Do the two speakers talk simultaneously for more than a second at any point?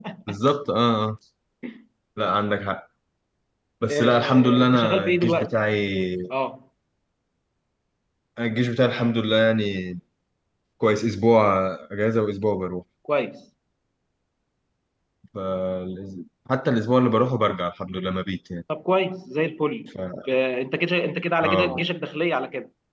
Yes, from 3.9 s

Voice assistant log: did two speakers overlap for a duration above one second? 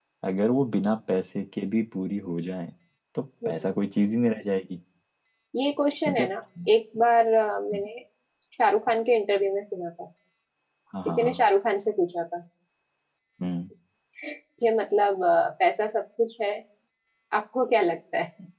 No

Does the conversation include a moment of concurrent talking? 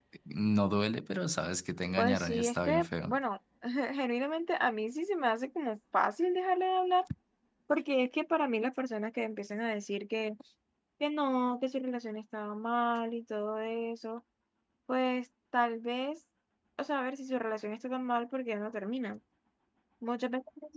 Yes, from 2.0 s

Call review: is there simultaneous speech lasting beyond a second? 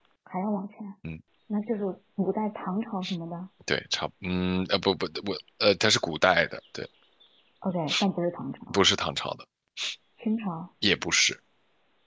No

